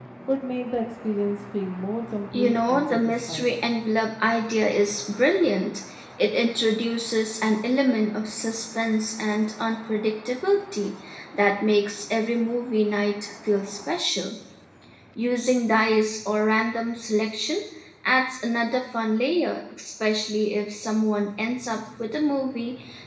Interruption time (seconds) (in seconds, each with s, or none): 2.3 s